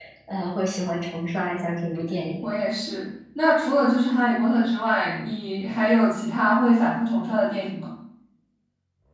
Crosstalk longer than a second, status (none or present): none